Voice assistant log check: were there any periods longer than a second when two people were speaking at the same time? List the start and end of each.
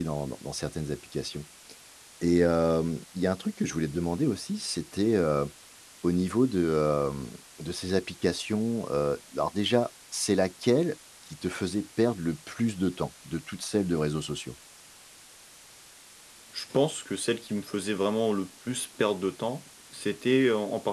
none

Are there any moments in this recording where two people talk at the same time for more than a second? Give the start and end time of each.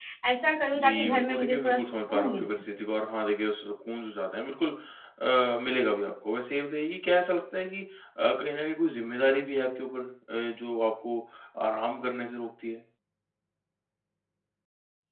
0.7-2.8

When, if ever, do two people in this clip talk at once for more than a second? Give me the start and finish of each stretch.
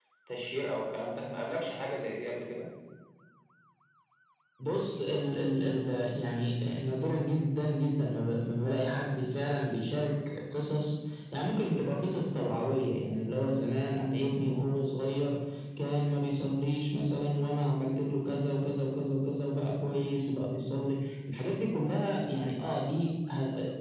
none

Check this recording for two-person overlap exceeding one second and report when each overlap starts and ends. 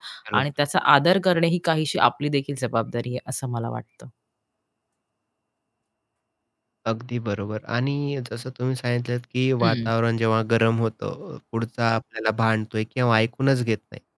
none

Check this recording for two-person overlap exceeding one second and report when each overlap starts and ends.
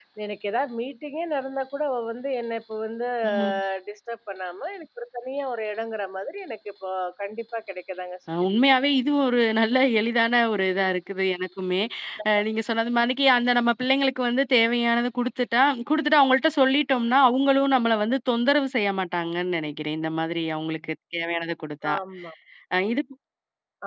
none

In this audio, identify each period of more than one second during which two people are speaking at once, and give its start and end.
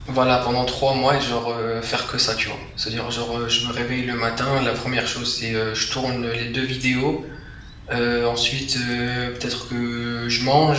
none

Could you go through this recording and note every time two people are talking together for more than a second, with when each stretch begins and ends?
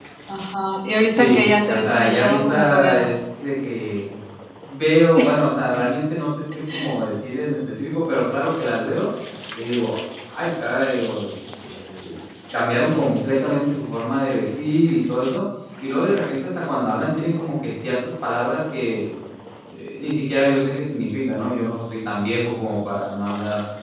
1.1-3.1

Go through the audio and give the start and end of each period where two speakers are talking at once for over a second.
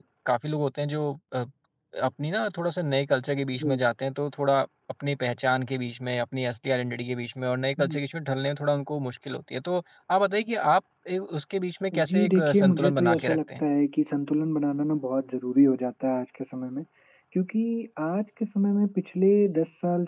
11.9-13.6

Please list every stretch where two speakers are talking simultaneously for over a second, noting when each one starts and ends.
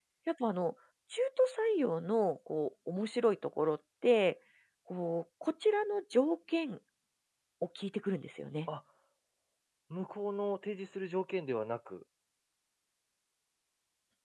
none

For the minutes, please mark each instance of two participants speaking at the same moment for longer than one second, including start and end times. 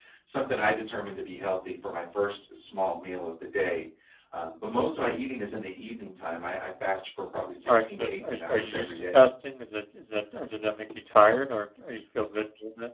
7.7-9.2

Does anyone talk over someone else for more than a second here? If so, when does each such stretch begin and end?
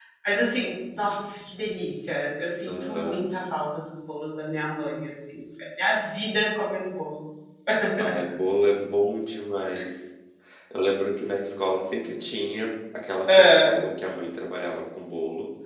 none

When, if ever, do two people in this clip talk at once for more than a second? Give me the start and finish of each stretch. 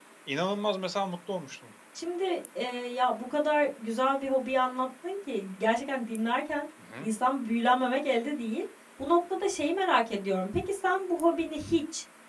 none

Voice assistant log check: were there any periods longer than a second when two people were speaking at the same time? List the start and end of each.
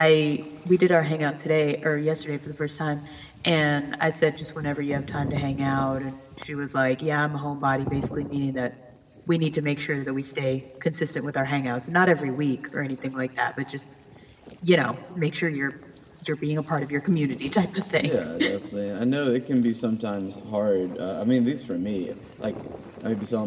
none

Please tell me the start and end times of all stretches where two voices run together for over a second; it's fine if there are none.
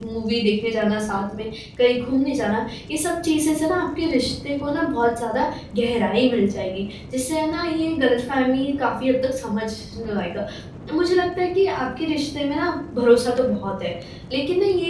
none

